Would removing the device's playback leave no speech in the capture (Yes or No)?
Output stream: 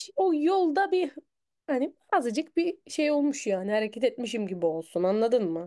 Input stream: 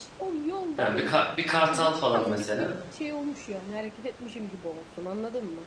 No